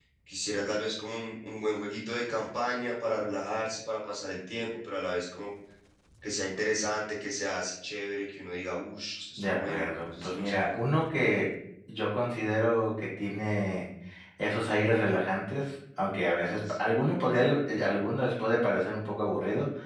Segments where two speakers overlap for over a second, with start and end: 9.4-10.8

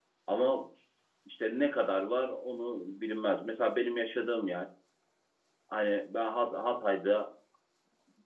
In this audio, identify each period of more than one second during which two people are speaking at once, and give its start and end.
none

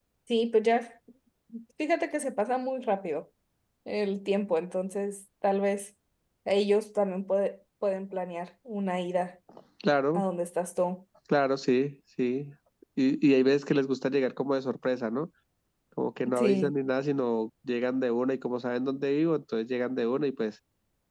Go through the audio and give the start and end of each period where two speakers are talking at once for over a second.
none

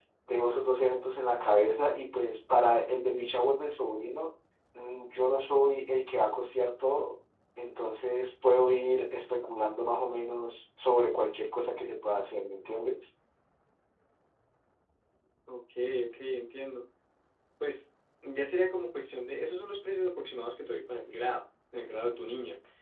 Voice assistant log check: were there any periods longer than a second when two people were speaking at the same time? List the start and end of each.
none

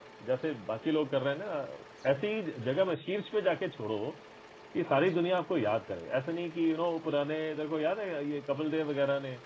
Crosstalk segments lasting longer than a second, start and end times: none

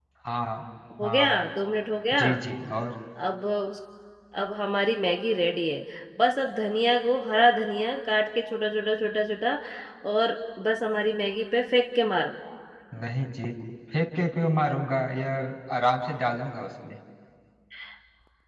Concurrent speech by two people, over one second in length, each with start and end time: none

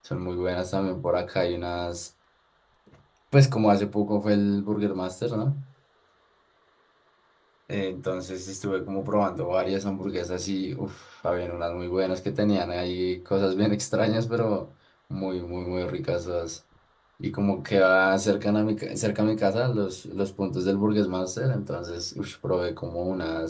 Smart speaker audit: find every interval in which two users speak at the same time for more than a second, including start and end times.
none

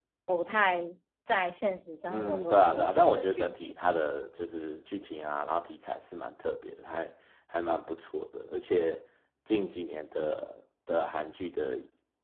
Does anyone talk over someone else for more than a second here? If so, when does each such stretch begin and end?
2.1-3.9

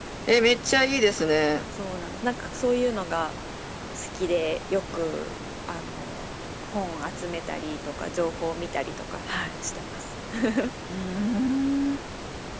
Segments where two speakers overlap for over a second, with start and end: none

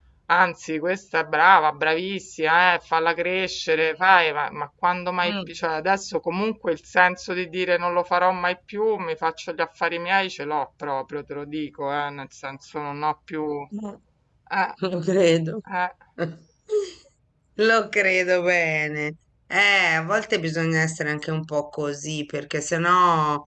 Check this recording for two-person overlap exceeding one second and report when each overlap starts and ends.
none

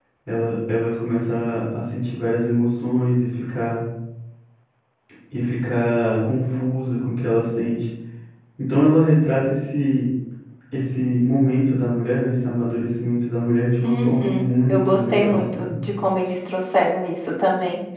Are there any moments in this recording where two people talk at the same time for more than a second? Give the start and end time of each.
13.8-15.7

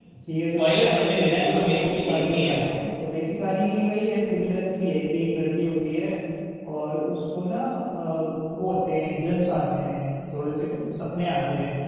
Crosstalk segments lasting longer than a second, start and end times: 0.6-2.8

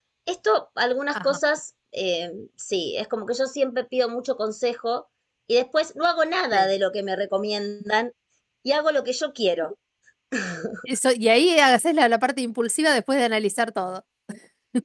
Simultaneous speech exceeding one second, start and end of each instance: none

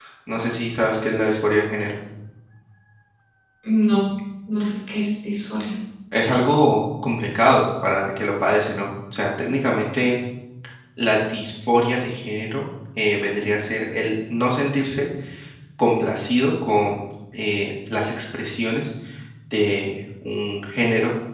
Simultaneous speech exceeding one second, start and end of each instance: none

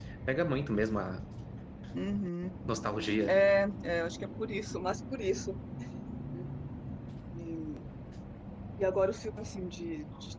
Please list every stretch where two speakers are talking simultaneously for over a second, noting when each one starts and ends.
none

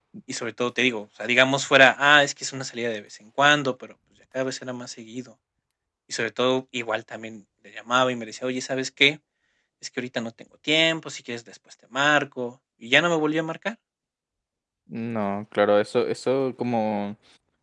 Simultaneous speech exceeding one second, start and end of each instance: none

